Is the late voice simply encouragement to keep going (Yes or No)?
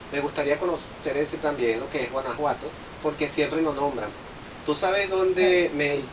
Yes